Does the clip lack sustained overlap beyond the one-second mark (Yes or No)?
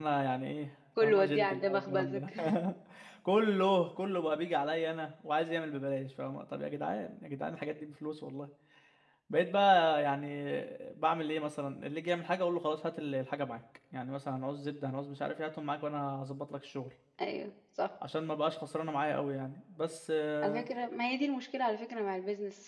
No